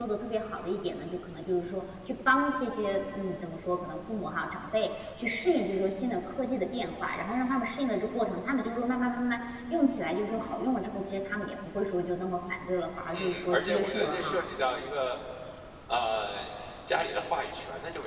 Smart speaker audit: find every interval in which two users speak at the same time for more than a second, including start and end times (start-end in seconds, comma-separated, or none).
13.1-14.4